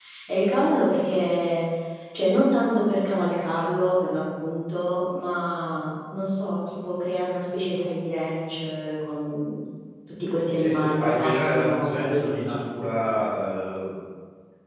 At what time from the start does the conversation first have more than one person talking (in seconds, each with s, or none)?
10.5 s